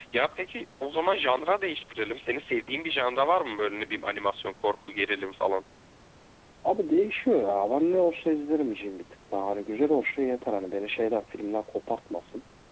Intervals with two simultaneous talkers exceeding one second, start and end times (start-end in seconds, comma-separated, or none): none